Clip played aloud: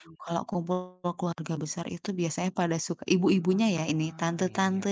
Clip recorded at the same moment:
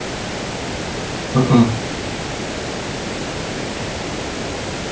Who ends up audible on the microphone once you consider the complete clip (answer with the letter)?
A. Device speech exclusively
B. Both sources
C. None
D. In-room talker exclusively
D